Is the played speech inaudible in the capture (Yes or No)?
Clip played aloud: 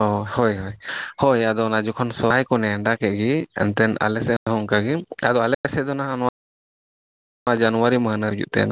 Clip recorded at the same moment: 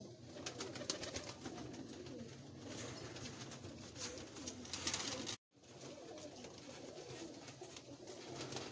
Yes